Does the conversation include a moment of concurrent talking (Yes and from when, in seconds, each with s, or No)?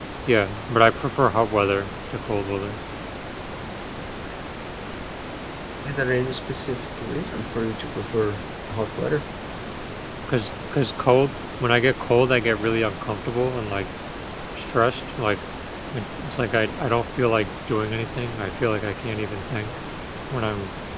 No